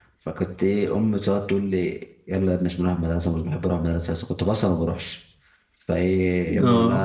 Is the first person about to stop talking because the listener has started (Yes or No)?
No